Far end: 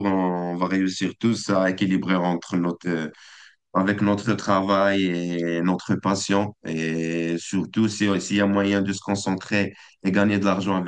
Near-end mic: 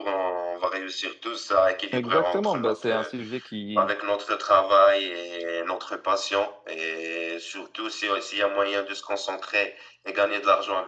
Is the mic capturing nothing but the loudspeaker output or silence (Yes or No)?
No